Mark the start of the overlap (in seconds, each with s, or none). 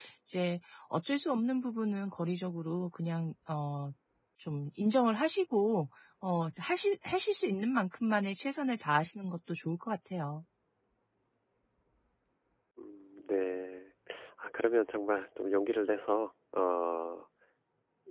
none